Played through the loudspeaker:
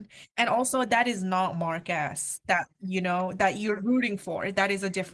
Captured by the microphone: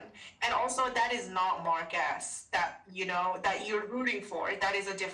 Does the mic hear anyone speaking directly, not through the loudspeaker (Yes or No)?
No